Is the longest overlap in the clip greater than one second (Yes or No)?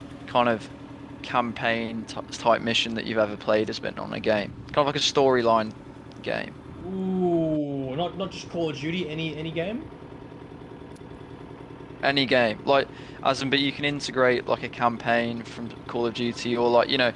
No